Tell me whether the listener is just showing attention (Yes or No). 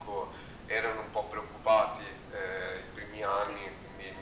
Yes